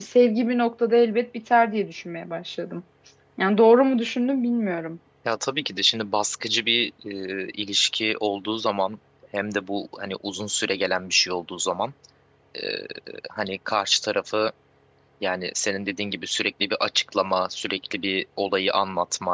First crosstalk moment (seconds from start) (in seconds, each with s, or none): none